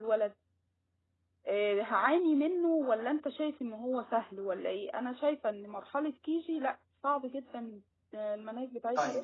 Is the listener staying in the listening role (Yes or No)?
No